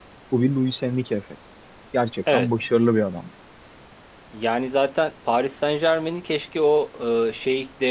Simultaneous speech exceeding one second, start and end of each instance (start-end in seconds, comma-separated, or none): none